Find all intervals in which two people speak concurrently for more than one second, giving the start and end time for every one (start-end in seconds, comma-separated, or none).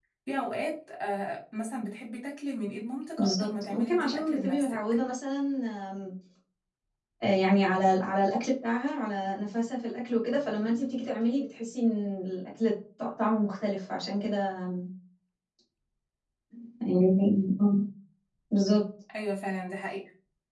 3.2-4.8